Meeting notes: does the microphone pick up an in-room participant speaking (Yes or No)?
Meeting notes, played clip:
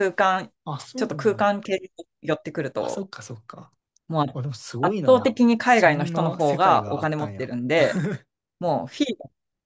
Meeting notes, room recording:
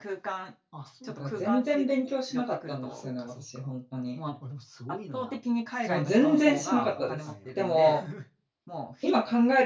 Yes